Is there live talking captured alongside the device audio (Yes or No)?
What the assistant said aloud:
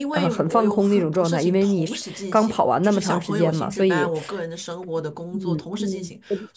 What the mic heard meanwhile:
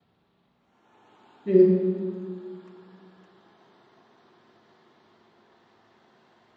Yes